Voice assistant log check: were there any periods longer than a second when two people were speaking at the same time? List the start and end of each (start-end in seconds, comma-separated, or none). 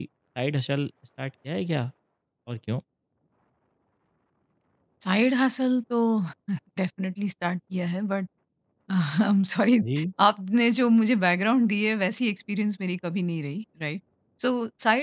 none